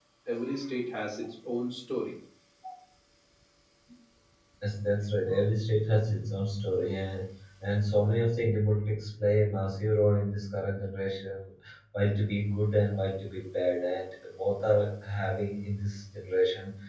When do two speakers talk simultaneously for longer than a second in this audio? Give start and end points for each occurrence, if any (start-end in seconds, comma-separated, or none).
none